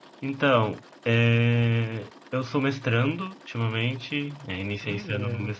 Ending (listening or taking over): listening